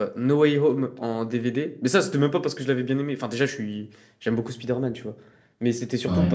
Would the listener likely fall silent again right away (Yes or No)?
Yes